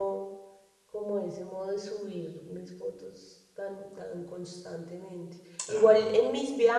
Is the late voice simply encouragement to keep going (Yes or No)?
Yes